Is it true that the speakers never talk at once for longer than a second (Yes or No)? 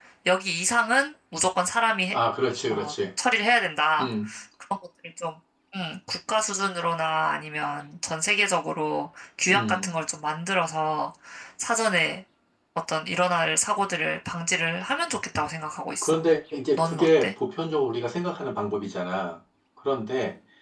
Yes